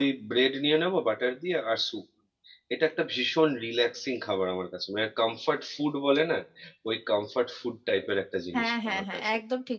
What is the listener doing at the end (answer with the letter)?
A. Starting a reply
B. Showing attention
A